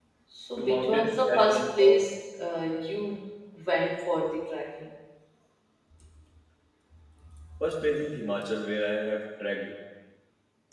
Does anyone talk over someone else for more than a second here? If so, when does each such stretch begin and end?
0.6-2.0

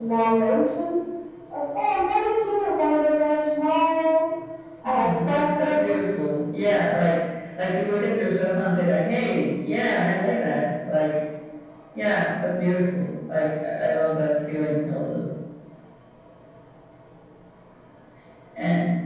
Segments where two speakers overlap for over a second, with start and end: 4.8-6.3

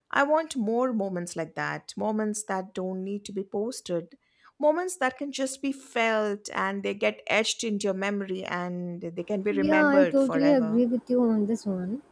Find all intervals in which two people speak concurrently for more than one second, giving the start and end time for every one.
9.5-10.8

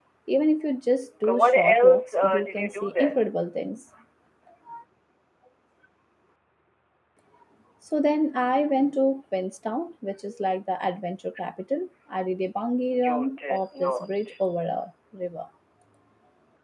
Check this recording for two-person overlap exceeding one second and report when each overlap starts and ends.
1.2-3.2, 13.0-14.3

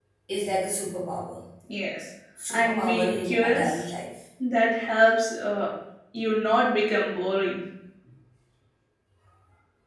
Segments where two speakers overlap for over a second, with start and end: 2.5-3.8

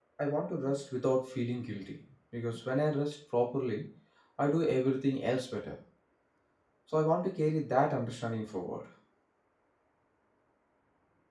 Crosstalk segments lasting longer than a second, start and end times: none

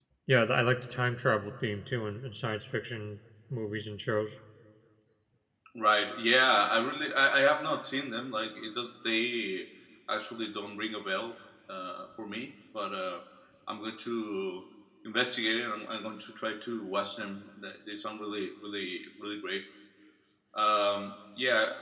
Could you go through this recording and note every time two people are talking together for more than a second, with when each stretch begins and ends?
none

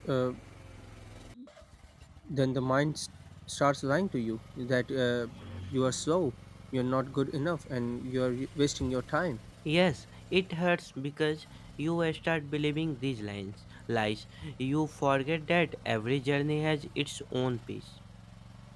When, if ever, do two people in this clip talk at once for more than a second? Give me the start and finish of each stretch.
none

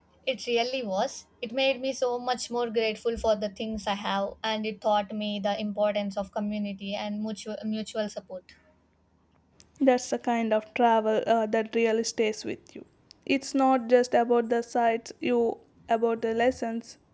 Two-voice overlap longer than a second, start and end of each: none

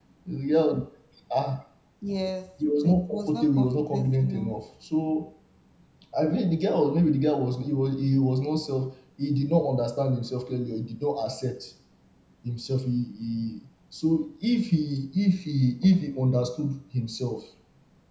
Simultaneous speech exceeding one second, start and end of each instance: 2.8-4.5

